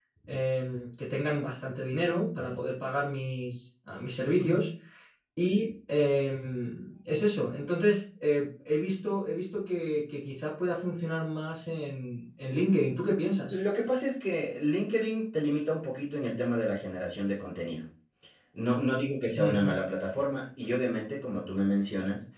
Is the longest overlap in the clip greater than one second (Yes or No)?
No